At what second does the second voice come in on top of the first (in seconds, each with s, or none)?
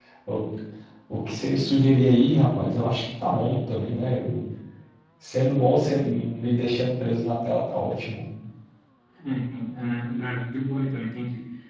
none